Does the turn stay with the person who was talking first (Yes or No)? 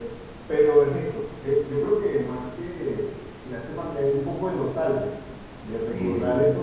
Yes